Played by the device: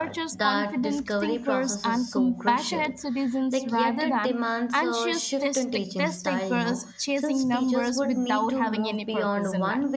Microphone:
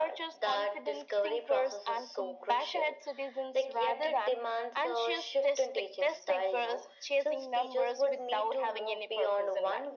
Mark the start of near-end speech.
none

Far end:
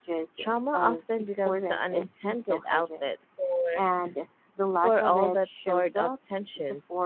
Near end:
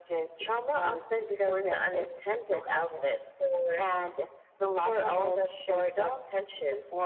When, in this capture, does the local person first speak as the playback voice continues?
none

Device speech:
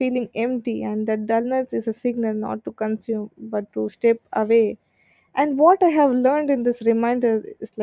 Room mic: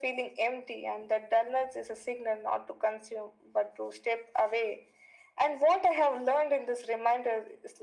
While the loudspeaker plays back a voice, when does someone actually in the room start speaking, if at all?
none

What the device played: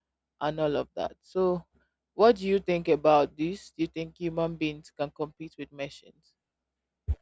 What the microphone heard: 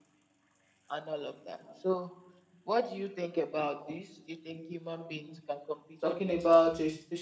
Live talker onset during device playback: 6.0 s

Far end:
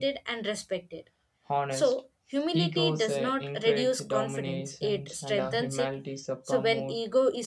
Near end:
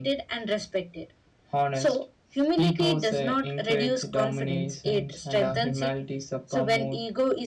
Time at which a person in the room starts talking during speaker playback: none

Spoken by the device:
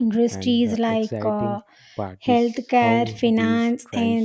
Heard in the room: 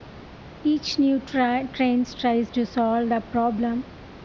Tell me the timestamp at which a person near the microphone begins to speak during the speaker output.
0.6 s

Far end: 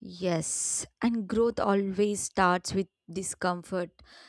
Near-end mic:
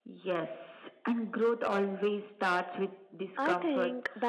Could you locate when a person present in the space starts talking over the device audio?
3.4 s

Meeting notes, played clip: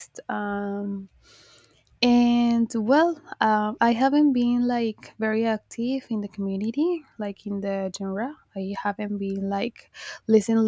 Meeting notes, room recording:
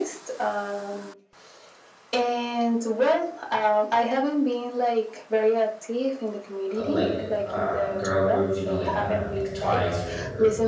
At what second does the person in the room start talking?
6.8 s

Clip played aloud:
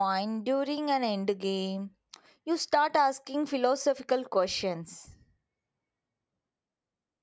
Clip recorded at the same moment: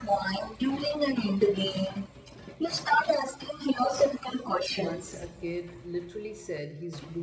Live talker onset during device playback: 4.8 s

